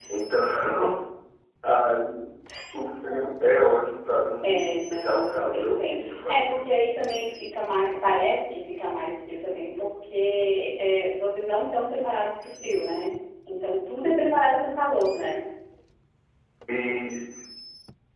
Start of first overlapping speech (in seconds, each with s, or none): 4.4 s